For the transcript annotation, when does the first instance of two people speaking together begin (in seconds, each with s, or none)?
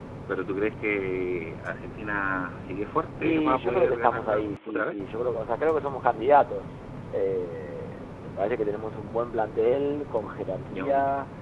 3.2 s